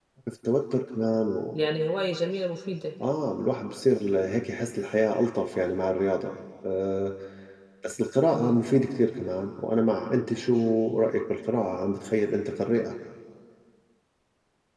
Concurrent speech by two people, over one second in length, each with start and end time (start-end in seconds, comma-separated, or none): none